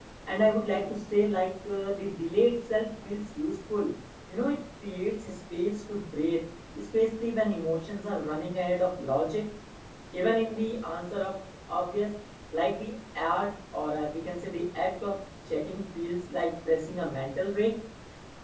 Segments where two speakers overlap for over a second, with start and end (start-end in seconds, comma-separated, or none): none